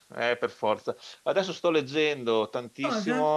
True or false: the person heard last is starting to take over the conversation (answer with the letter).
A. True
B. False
B